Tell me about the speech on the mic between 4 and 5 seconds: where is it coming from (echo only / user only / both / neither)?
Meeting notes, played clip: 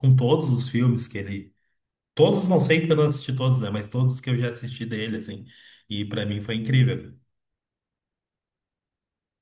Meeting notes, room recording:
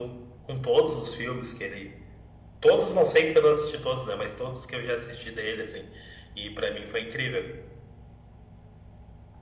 echo only